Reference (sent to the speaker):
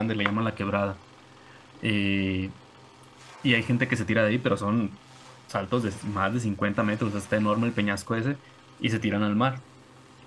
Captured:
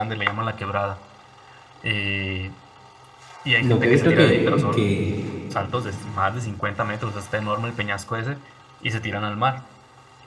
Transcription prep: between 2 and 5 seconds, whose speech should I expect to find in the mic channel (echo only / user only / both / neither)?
both